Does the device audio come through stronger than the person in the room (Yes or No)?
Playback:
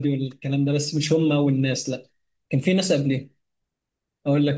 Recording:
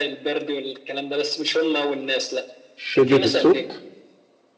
No